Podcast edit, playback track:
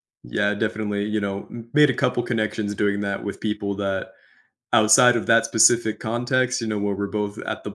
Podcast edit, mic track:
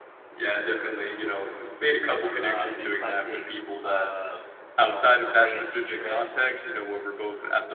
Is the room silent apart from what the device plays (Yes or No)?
No